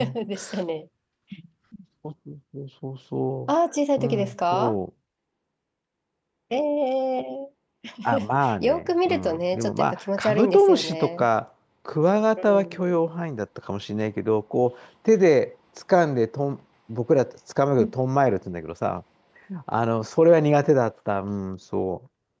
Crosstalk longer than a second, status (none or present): present